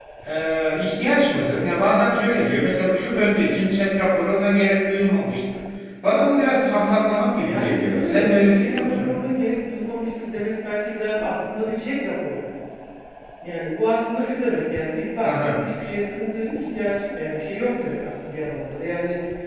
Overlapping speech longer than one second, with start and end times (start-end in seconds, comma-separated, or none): 7.4-9.2